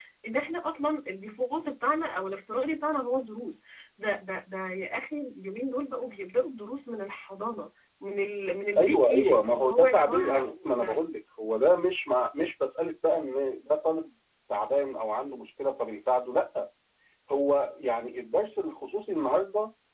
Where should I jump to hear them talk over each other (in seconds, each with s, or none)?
8.8 s